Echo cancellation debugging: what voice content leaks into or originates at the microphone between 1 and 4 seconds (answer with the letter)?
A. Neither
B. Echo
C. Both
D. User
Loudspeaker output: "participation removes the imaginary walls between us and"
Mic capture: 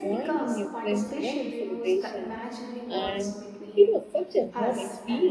C